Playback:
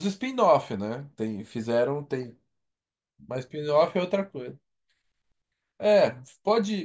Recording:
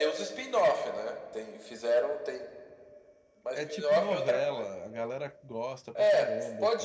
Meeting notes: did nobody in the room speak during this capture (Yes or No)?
No